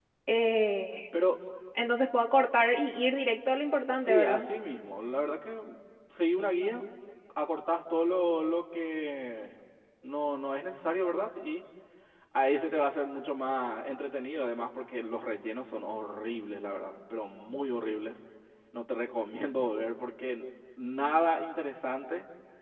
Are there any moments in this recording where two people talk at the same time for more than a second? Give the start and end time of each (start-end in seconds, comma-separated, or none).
none